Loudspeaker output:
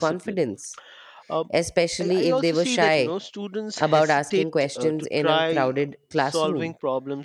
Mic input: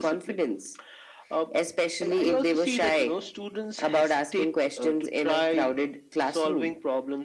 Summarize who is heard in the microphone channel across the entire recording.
echo only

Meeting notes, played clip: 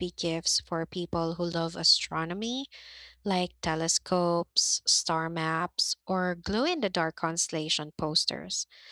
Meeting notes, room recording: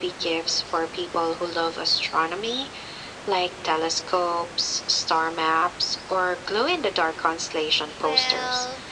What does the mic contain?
both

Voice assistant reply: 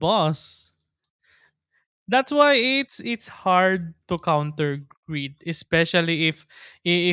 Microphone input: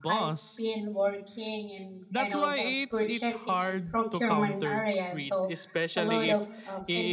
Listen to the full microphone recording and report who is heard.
both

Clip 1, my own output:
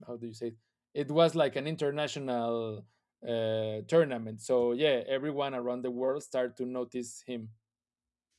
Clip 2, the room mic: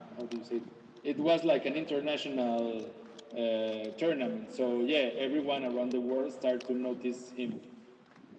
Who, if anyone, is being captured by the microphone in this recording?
echo only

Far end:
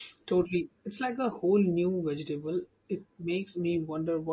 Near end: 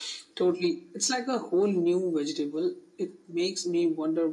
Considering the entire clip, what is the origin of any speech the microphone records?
echo only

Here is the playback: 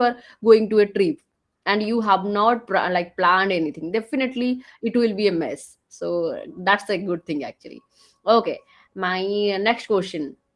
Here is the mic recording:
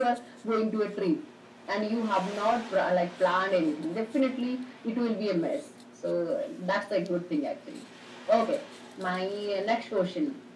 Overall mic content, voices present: echo only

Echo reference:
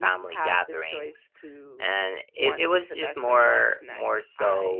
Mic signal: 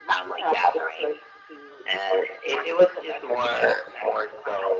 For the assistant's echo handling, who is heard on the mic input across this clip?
echo only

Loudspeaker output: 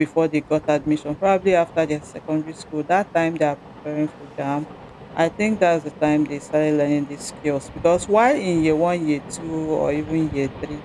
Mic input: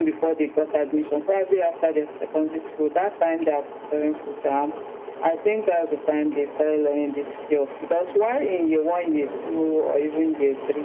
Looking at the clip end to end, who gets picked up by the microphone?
both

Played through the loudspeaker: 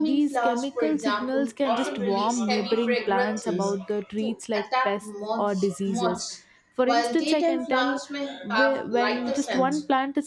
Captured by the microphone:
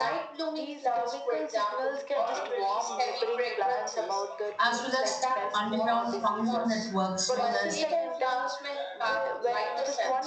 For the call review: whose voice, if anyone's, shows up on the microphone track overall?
both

